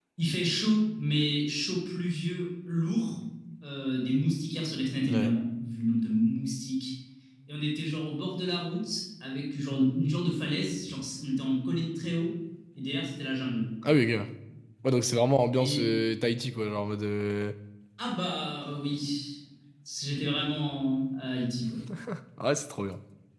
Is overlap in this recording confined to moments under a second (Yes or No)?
Yes